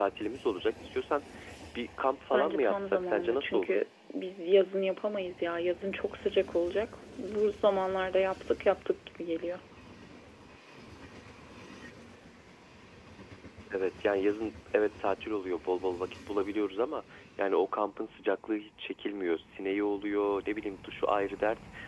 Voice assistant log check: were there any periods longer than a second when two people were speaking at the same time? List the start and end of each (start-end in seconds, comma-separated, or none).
2.3-3.8